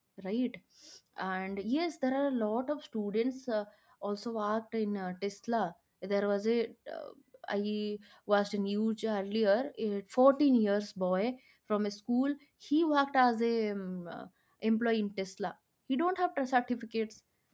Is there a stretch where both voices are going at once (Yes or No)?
No